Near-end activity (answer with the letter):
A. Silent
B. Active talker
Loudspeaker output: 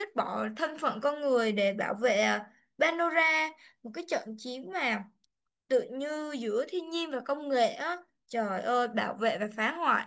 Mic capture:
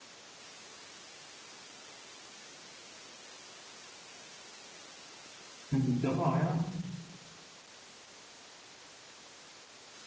B